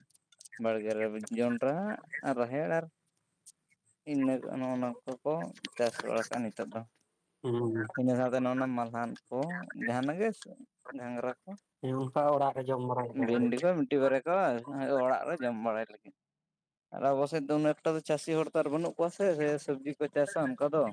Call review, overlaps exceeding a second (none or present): none